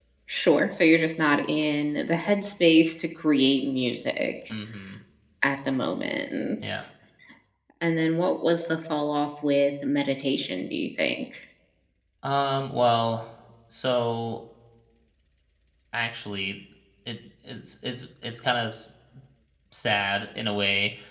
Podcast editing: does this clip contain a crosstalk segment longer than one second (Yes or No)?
No